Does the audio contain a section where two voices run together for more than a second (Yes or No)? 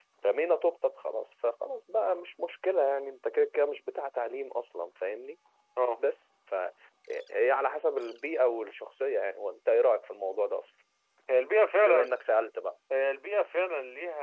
No